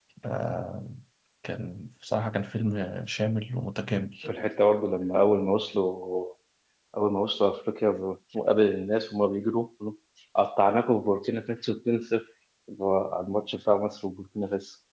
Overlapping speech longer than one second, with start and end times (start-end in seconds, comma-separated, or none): none